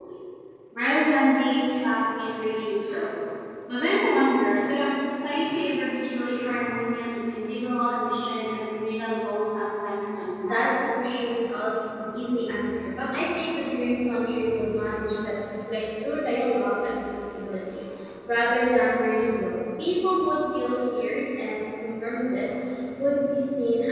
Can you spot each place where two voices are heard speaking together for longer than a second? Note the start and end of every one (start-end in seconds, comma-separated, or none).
none